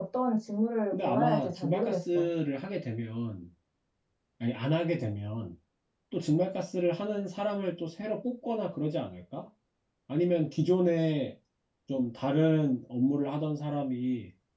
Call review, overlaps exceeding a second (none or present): present